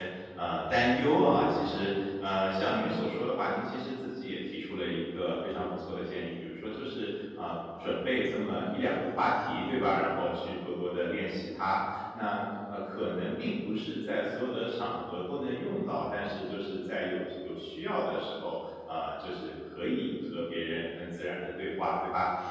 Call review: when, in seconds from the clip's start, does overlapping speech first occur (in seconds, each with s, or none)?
none